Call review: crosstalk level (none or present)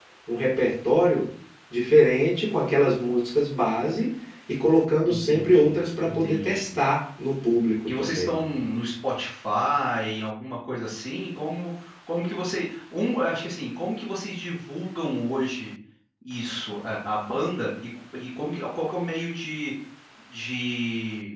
present